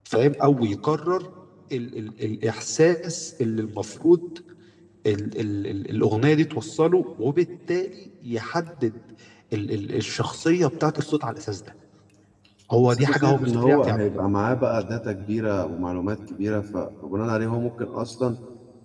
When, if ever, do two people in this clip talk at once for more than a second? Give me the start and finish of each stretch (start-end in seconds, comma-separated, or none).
12.8-14.1